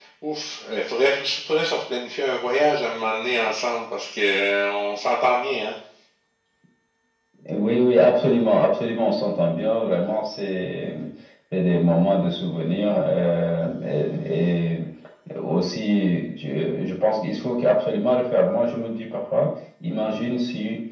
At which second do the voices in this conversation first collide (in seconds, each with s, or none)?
none